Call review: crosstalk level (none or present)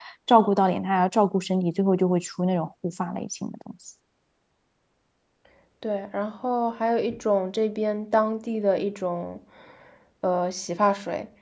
none